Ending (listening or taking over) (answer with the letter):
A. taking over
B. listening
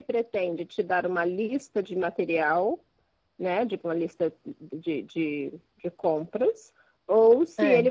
B